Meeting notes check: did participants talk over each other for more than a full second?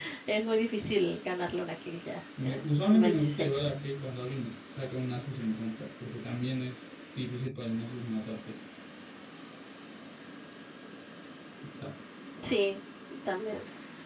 Yes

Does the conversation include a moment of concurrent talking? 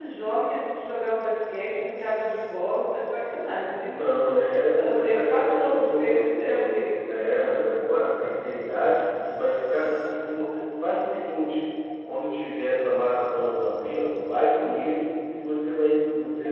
Yes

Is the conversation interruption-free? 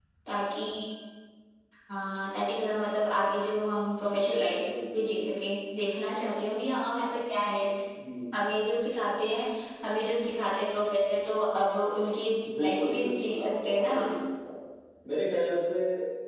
No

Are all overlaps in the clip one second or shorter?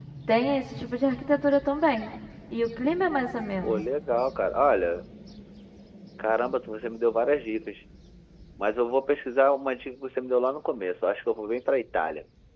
Yes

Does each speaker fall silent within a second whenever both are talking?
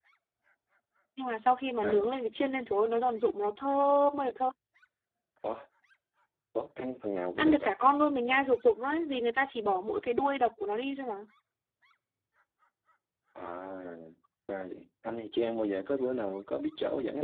Yes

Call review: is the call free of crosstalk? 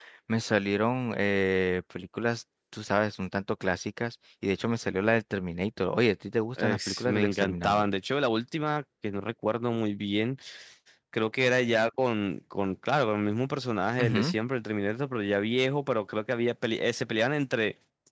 No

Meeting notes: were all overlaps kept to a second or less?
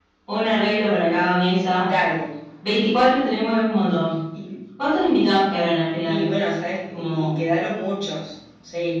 Yes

